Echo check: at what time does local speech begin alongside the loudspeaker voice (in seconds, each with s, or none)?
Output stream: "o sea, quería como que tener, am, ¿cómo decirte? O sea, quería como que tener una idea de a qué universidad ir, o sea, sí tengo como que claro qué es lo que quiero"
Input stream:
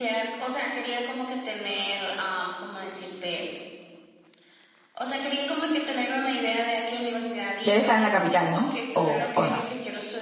7.6 s